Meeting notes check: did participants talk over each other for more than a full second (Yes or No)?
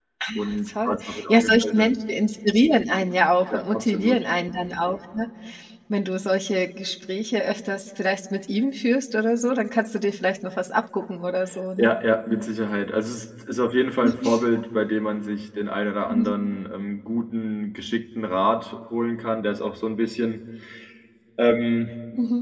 Yes